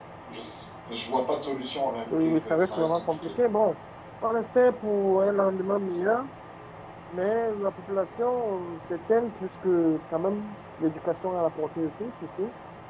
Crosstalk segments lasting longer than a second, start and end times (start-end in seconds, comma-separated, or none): 2.1-3.3